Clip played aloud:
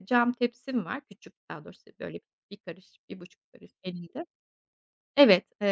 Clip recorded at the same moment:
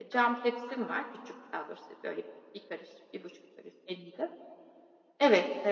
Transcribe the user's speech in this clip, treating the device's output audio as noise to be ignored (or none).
none